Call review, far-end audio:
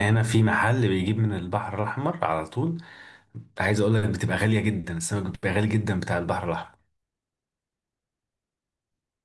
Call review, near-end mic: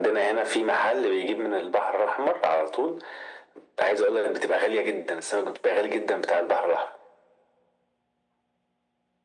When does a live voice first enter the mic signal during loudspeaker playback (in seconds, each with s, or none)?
none